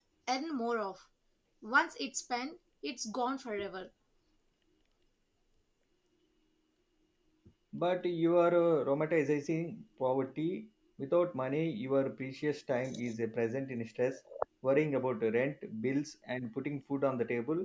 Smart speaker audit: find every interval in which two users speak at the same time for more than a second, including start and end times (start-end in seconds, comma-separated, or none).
none